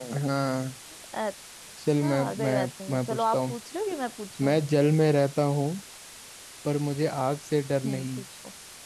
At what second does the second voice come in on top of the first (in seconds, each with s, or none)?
2.0 s